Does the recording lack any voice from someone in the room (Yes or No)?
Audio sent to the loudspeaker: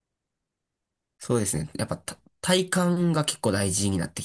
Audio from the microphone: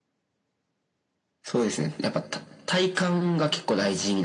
Yes